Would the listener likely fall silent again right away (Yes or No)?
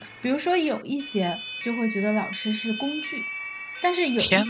Yes